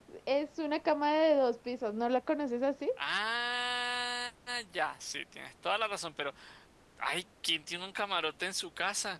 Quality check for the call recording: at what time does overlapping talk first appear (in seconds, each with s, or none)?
none